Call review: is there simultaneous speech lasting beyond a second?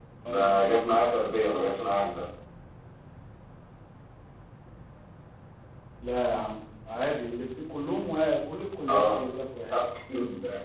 No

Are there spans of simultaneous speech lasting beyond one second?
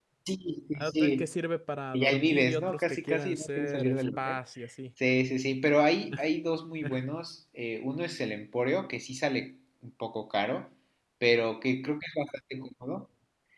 Yes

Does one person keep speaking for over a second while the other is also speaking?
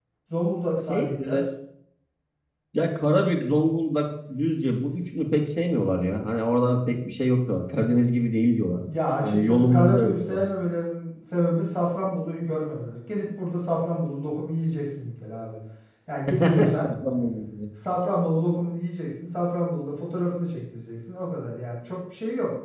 Yes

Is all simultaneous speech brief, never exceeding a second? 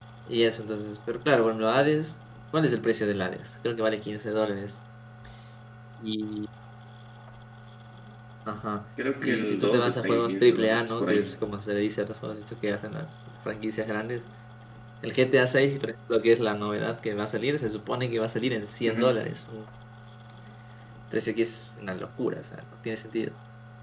No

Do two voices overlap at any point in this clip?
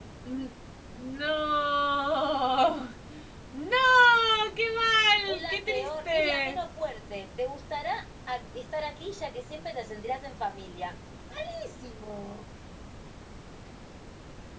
Yes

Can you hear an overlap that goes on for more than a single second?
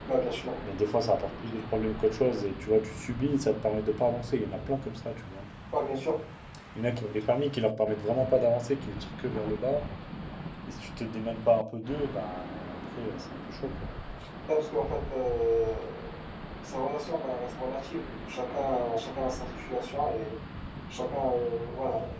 No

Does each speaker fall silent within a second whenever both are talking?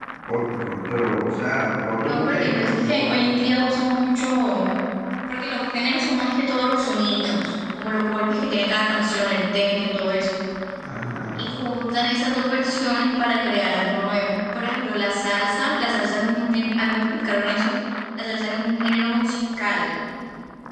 No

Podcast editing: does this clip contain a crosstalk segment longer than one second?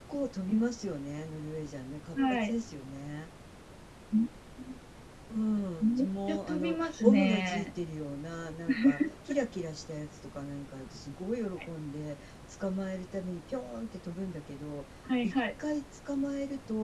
Yes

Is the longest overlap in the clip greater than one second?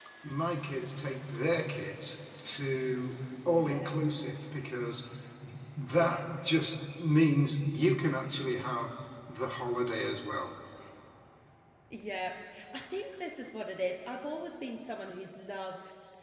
No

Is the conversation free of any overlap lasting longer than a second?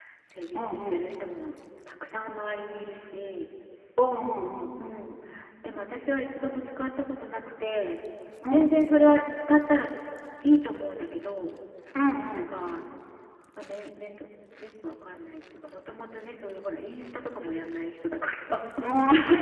Yes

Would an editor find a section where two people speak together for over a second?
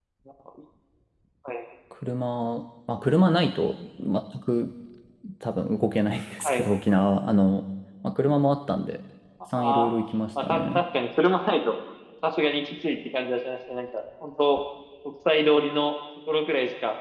No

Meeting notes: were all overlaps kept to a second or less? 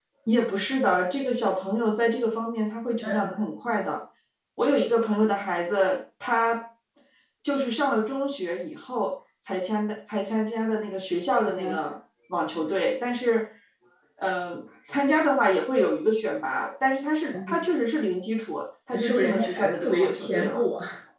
No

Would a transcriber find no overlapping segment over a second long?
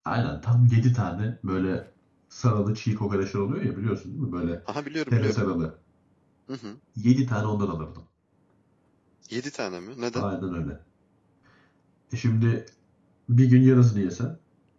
Yes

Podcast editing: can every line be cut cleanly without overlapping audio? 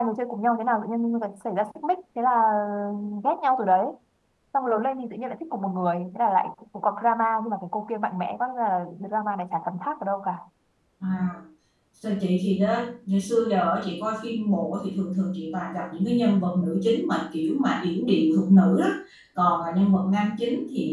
Yes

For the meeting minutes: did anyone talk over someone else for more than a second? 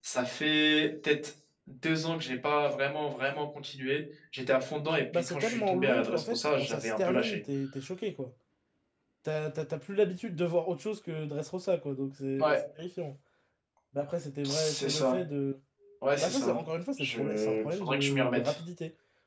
Yes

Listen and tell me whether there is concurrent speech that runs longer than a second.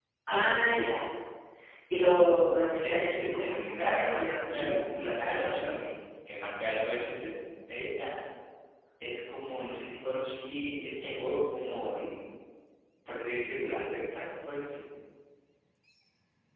Yes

